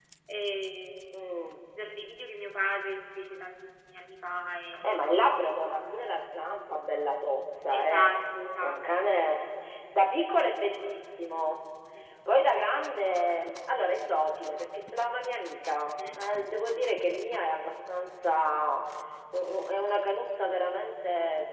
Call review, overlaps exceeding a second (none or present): none